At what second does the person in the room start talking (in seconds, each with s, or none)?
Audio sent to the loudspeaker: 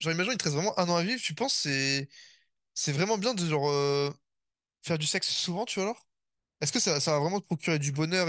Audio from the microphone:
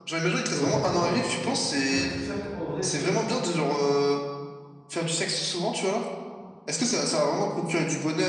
0.6 s